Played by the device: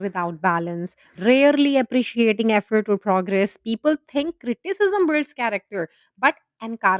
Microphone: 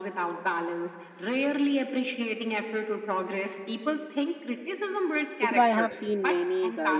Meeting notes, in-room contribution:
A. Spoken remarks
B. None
A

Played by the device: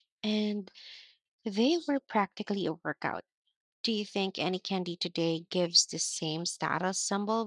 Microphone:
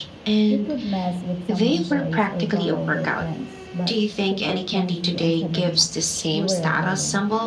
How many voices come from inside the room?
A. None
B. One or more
B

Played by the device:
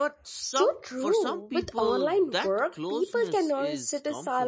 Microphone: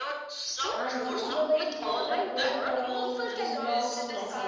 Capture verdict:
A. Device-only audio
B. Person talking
B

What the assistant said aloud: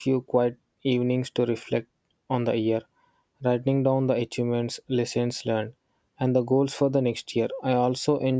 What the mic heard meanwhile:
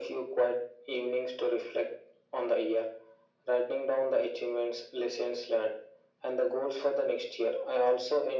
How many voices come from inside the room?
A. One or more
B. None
B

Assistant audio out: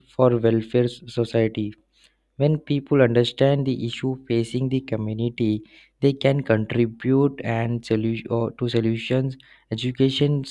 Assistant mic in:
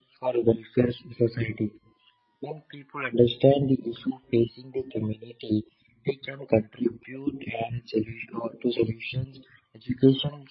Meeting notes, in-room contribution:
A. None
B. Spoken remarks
A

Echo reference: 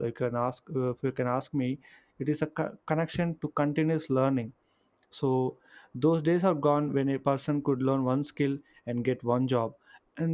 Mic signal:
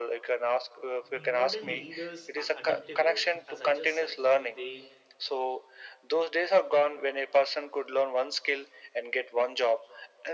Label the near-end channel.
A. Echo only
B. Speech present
B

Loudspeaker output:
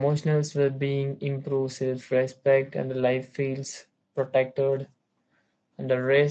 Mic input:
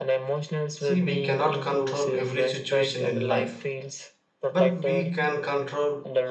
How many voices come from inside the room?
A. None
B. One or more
B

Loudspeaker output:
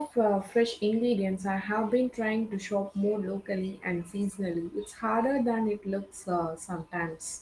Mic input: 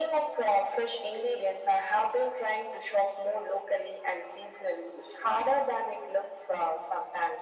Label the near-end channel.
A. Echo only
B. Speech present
A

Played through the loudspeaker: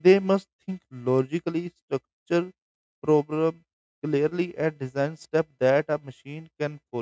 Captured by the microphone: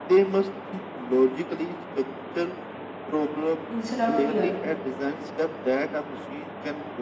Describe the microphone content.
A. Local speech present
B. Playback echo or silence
A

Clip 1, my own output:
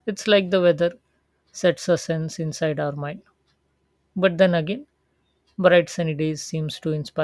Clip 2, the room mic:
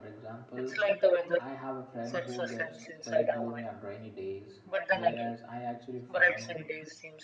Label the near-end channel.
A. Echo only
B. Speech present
B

